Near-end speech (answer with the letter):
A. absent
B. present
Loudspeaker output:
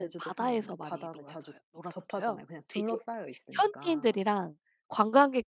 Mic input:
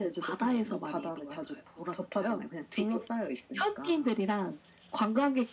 A